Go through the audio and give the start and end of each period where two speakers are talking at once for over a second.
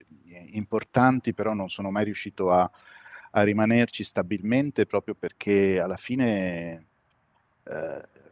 none

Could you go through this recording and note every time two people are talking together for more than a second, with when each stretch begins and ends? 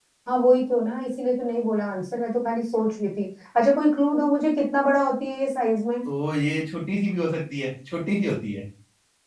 none

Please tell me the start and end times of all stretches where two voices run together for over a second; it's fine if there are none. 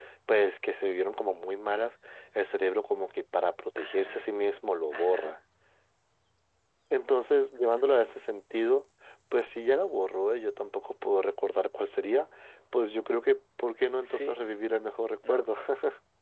none

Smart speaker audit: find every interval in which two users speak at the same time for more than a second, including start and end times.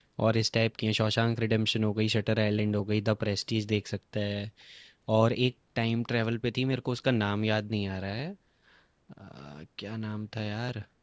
none

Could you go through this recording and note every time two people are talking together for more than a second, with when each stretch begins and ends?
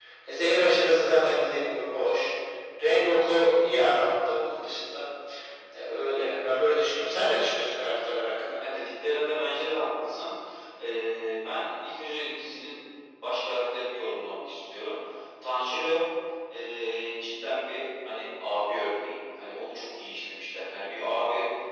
none

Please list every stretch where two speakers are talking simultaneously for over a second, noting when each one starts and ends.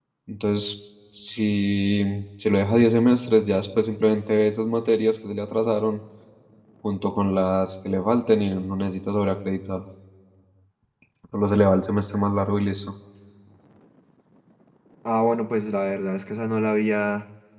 none

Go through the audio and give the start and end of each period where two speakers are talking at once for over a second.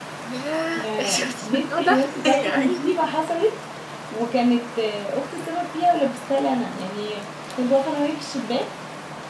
0.8-3.0

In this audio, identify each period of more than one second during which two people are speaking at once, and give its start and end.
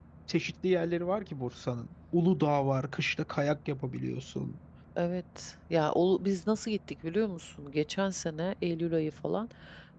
none

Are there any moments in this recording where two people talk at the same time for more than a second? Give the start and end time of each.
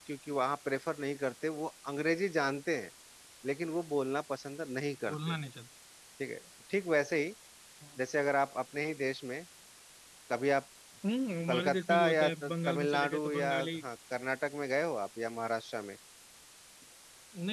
11.5-13.7

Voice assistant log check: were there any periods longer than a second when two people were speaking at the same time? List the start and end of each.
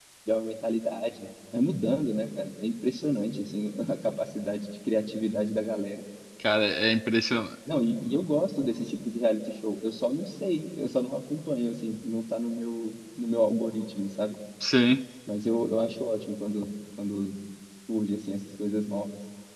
none

